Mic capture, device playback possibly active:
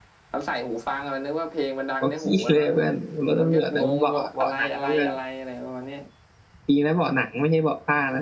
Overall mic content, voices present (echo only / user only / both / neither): both